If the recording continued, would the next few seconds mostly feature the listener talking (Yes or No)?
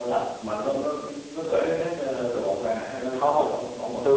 Yes